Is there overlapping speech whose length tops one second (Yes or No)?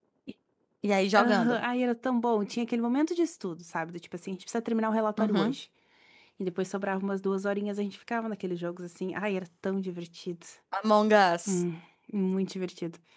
No